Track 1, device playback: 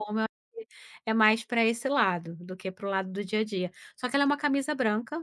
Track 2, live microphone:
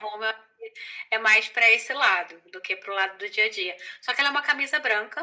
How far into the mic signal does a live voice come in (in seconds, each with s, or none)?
none